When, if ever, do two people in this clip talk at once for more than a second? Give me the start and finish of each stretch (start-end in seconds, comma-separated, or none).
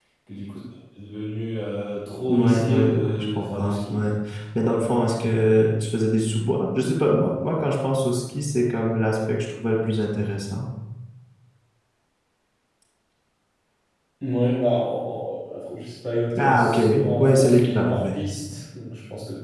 2.3-4.1, 16.4-18.2